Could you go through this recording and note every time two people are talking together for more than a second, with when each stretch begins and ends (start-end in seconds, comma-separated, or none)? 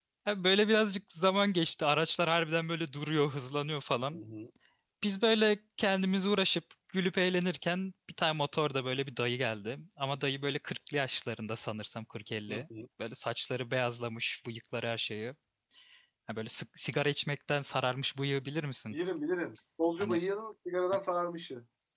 none